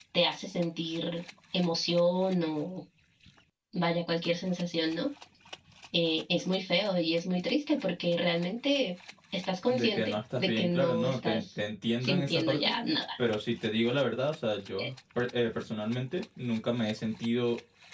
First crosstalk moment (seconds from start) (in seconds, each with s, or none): 9.7 s